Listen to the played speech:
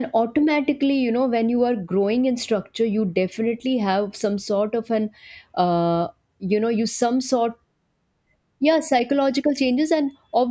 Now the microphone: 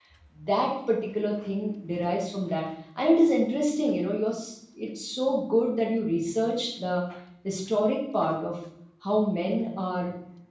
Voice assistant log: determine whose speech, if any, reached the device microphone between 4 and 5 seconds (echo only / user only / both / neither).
user only